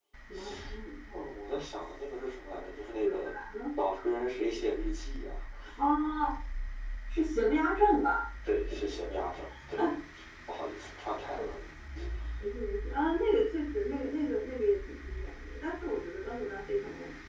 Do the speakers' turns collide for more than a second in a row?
No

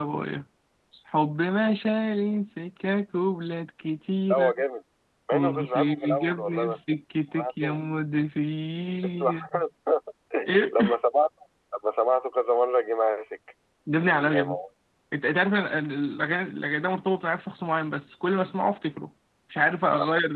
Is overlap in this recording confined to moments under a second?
No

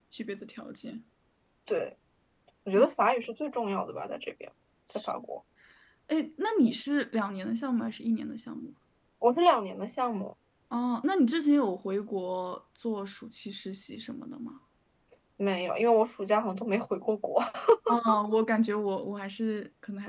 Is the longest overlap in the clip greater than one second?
No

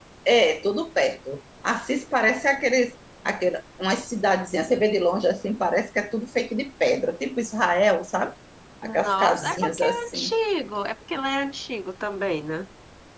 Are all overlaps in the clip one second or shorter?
No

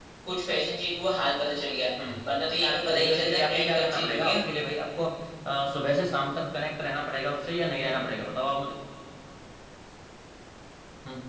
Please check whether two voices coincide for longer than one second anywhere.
Yes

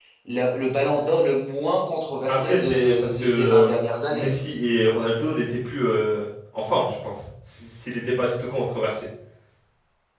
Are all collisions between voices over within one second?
No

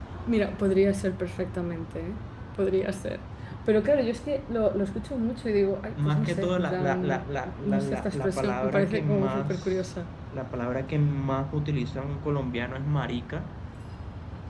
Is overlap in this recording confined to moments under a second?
No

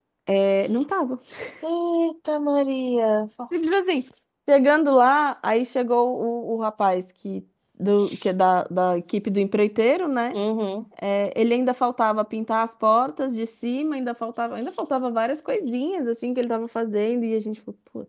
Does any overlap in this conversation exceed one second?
No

